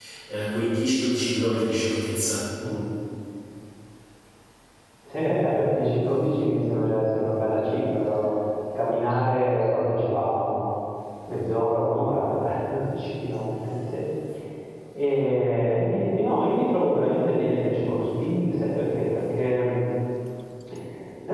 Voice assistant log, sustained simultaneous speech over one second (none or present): none